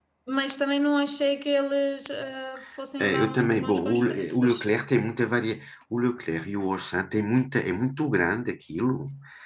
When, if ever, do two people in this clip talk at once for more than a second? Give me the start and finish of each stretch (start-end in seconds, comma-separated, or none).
3.0-4.7